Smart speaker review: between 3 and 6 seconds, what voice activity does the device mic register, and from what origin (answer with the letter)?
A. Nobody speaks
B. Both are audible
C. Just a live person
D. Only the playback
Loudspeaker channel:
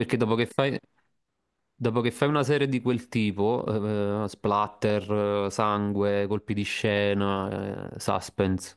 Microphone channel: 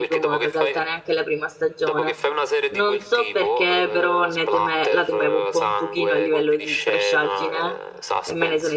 B